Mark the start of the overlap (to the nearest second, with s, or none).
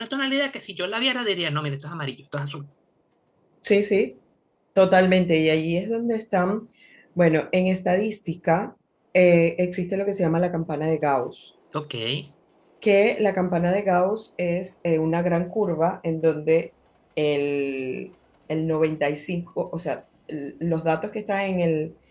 none